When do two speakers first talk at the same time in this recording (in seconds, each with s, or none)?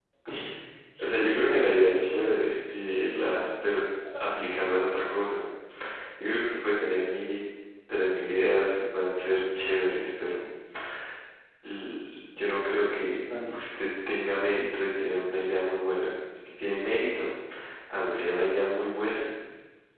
1.0 s